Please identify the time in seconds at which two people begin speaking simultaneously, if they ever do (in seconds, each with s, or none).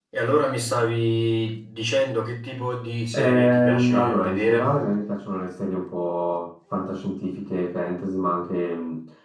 3.1 s